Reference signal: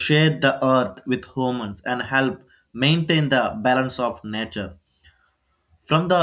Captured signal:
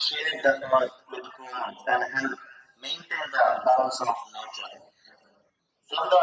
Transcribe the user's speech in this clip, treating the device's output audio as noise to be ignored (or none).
none